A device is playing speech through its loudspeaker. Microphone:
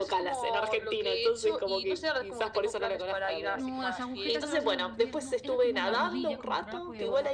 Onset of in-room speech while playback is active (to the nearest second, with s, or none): 4 s